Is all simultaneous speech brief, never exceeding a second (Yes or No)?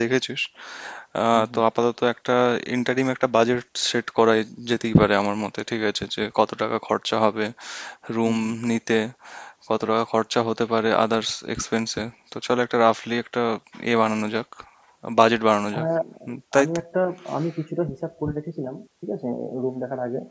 Yes